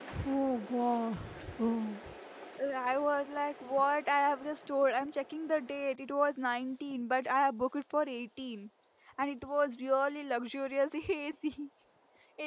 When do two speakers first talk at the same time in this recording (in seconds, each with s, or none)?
none